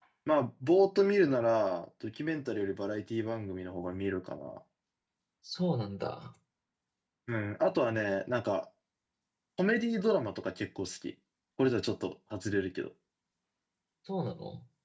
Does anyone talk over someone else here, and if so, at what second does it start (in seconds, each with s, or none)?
none